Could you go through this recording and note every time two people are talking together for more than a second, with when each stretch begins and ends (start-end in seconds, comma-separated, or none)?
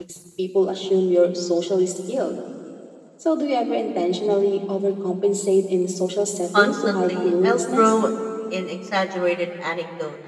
6.6-8.0